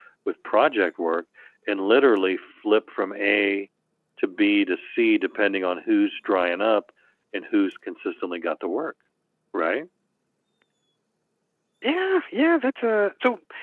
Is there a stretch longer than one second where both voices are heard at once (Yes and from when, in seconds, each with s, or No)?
No